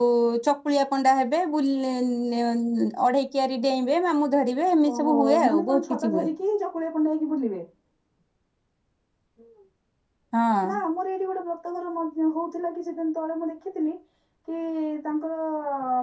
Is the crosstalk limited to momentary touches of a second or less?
No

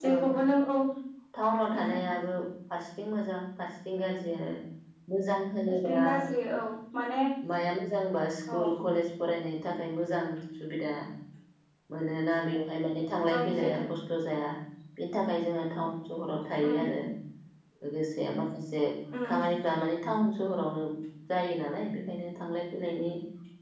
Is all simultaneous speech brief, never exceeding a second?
Yes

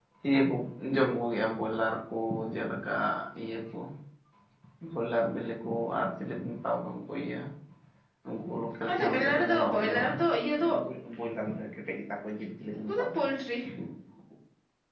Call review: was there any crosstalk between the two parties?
Yes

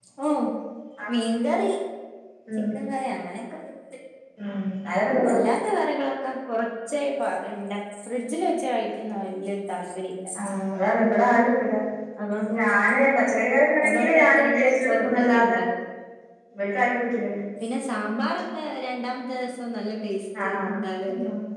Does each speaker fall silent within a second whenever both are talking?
No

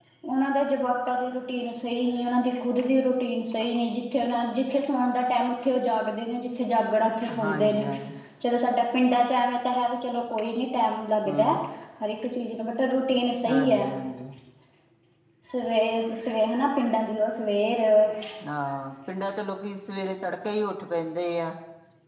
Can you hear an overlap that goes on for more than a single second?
No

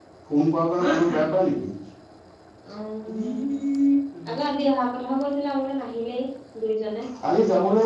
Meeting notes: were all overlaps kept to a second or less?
Yes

